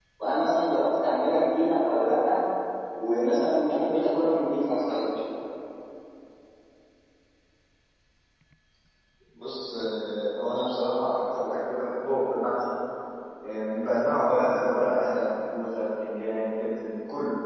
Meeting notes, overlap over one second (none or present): none